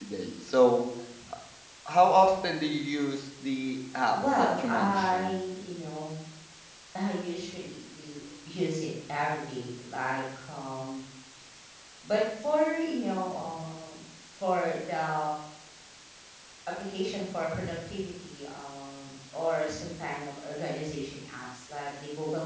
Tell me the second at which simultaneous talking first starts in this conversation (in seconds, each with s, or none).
4.1 s